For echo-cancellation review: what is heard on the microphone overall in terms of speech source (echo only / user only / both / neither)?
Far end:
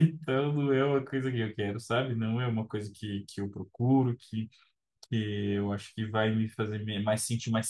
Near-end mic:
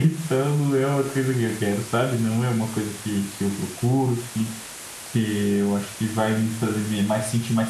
echo only